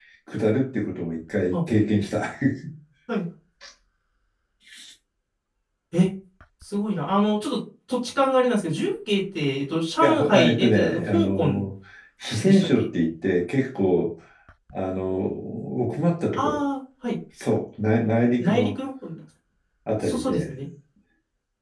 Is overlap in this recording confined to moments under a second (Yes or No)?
No